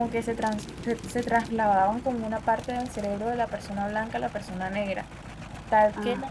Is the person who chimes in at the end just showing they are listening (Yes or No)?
Yes